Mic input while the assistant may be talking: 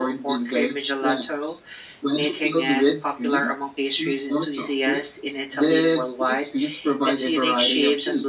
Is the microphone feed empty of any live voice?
Yes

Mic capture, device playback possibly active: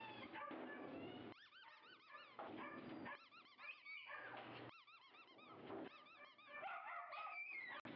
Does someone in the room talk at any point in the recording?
No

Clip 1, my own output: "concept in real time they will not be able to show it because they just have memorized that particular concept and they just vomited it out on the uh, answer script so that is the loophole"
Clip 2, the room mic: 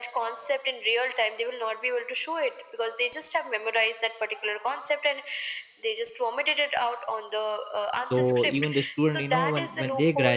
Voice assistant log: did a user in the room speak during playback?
Yes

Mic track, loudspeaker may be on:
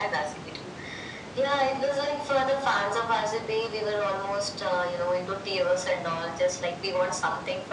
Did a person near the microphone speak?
No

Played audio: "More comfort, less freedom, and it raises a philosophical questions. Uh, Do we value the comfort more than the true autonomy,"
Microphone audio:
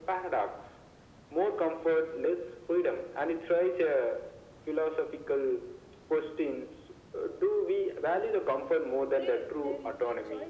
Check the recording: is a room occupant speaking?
Yes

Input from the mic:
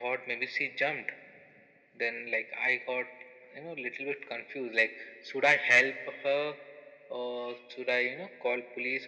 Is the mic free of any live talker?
Yes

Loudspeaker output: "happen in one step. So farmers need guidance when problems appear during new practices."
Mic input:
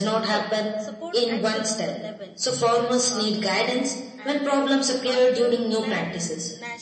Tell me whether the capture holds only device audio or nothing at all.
No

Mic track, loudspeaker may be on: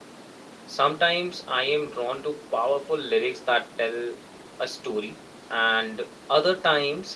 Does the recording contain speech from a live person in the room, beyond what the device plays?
Yes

